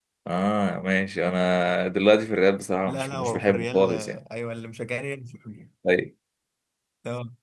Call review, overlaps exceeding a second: present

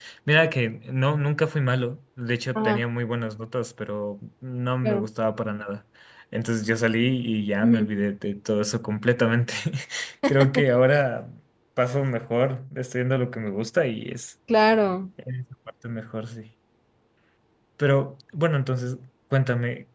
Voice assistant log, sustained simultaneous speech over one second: none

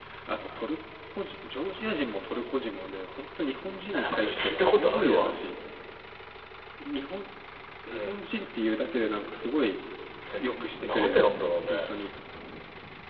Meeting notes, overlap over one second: present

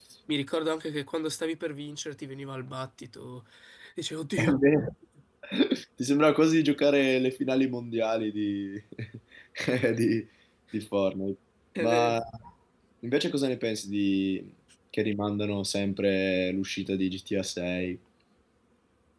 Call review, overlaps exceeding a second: none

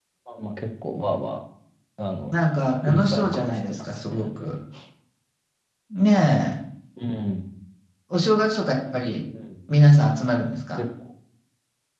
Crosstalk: present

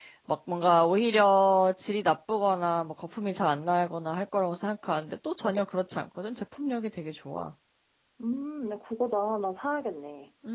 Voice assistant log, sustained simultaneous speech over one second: none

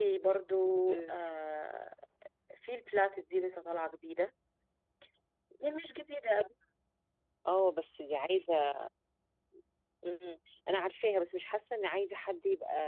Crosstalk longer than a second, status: none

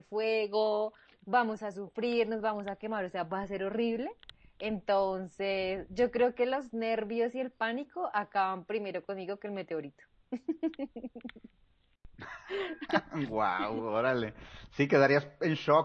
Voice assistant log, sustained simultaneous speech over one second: none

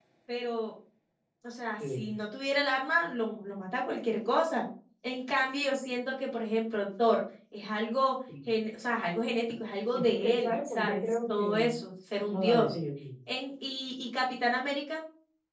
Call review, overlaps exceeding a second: present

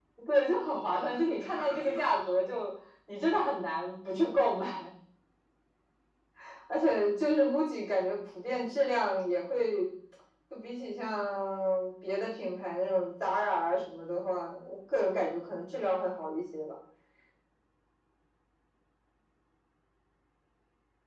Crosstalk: present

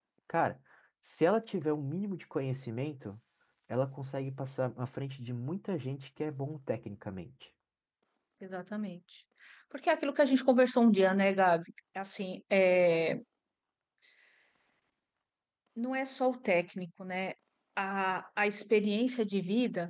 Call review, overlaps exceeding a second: none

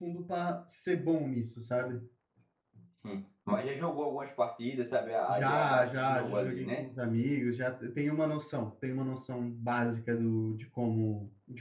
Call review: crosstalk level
present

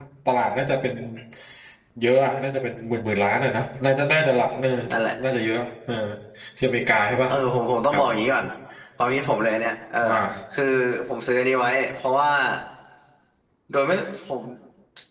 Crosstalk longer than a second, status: none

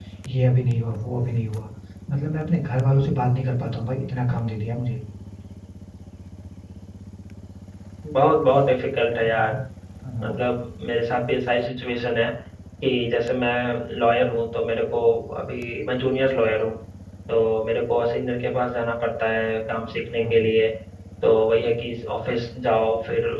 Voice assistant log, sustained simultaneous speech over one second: none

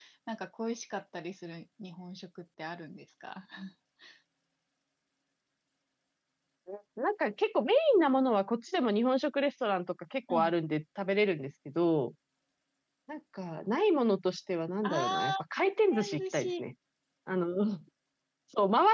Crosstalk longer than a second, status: present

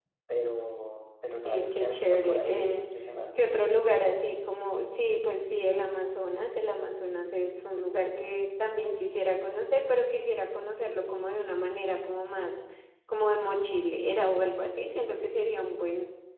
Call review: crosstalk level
present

